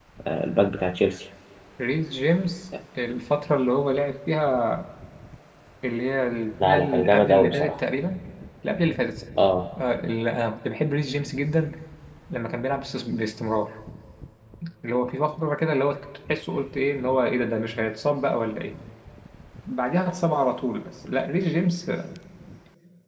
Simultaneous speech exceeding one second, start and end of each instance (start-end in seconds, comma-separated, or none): 6.6-7.8